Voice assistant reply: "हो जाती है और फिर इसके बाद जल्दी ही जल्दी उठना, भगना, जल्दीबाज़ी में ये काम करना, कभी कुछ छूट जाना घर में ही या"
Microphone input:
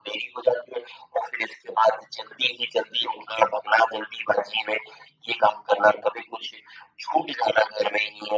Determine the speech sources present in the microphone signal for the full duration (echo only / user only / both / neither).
echo only